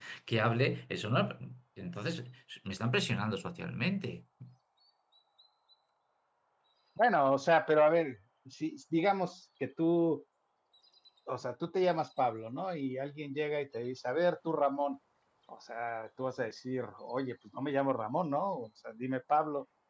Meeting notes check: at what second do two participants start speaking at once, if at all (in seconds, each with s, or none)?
none